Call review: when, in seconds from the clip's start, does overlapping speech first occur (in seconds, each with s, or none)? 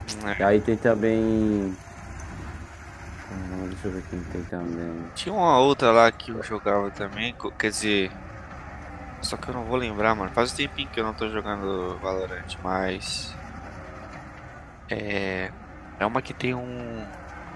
none